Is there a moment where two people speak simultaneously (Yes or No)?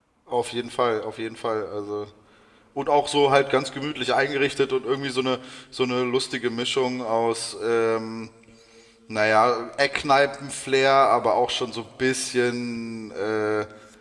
No